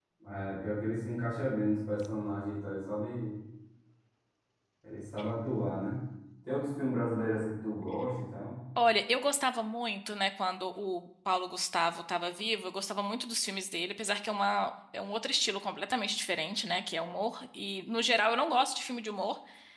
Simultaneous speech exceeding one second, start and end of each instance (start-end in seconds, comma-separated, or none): none